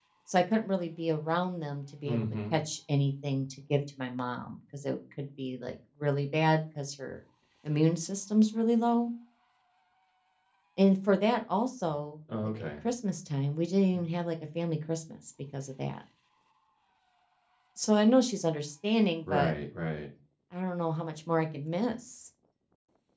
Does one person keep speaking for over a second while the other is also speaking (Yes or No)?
No